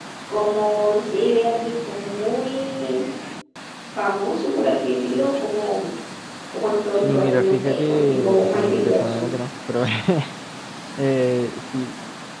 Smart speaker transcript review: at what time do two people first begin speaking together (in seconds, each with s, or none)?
6.9 s